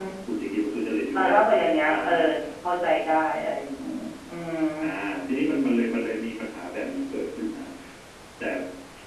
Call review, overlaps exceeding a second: none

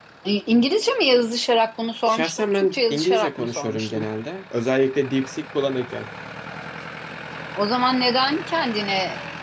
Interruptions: present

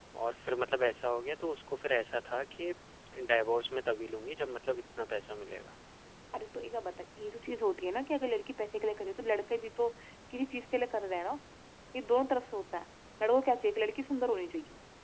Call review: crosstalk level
none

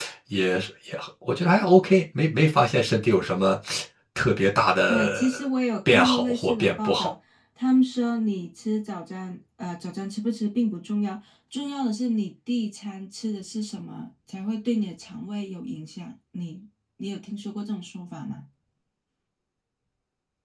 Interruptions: present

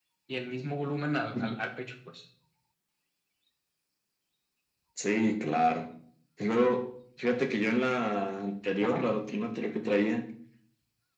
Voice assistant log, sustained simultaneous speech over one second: none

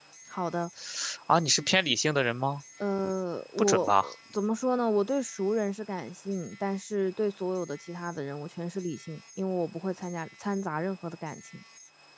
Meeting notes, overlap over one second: none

